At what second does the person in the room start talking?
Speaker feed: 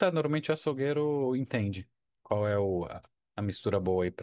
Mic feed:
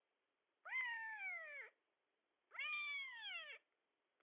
none

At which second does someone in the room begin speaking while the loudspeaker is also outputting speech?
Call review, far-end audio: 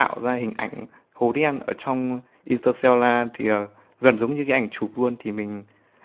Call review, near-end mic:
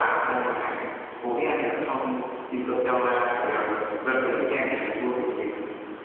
none

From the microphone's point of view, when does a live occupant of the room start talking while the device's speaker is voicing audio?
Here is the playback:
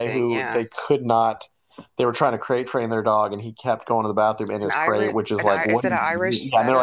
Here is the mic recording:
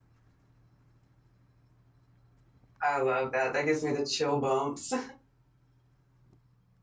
2.8 s

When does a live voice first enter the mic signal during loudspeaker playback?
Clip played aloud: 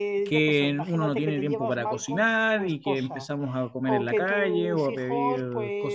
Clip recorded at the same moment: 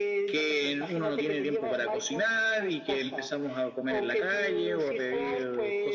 none

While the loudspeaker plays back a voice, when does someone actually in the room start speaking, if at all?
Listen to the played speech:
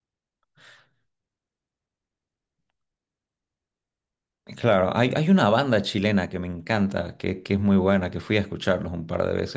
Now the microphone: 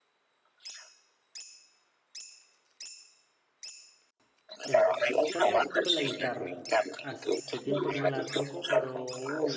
4.6 s

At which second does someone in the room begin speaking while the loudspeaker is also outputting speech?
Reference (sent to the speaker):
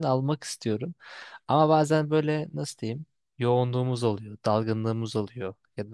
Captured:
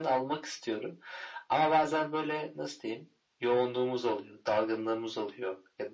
none

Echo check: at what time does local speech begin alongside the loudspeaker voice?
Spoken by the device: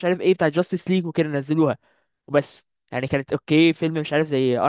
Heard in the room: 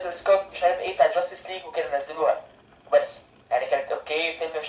none

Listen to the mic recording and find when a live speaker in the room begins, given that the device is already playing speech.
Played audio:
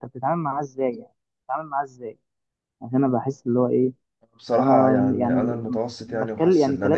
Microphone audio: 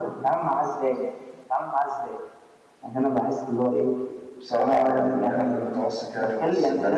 none

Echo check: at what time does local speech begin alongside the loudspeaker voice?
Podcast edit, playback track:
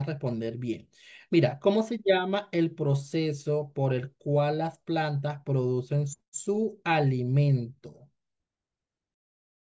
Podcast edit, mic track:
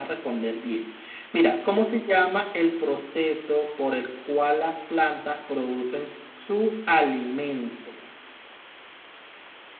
none

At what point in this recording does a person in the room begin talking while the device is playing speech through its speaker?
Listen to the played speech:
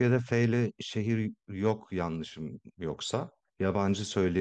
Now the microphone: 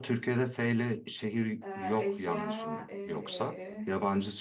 1.6 s

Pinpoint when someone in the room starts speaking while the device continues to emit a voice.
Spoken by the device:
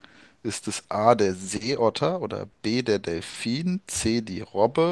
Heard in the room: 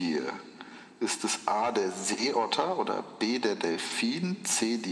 none

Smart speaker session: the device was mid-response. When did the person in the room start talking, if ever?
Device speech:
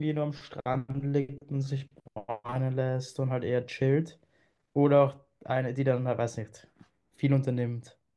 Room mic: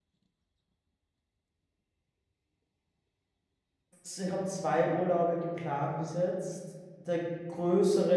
4.0 s

